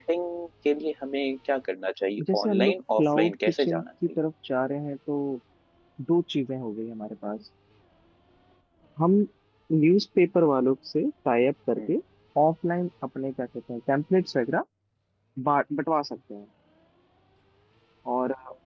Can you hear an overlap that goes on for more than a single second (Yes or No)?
Yes